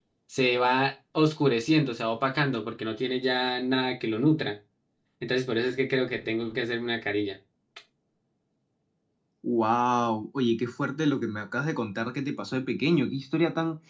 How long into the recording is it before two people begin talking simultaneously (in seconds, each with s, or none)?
none